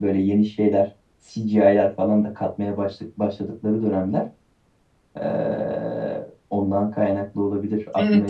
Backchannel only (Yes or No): No